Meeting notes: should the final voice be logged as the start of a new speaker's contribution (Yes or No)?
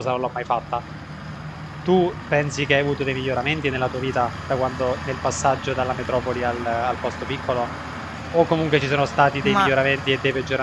No